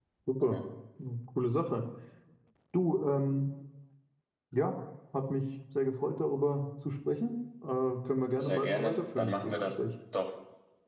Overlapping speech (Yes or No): Yes